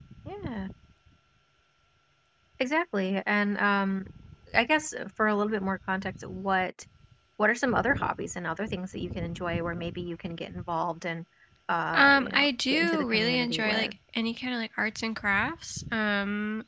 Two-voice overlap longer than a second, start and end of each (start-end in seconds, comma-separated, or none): 11.9-13.9